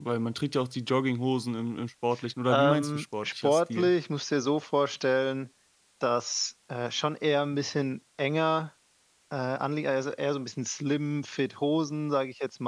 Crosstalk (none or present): present